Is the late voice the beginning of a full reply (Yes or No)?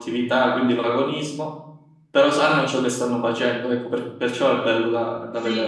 Yes